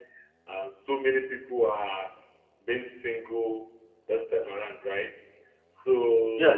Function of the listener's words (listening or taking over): taking over